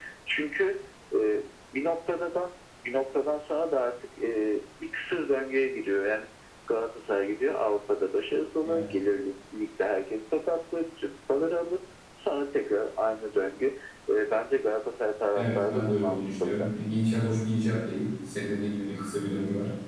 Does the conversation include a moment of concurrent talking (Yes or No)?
Yes